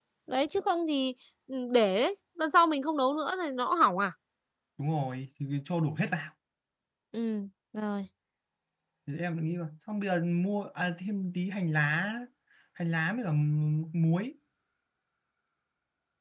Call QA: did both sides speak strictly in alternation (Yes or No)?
Yes